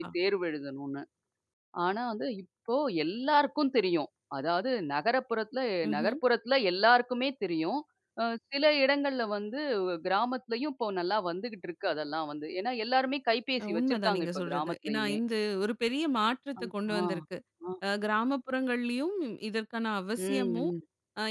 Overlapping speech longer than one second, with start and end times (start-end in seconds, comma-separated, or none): 13.6-15.2